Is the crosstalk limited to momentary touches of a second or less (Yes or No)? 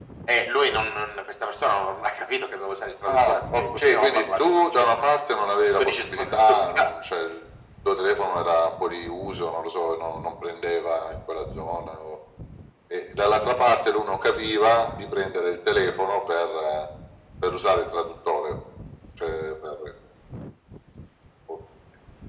No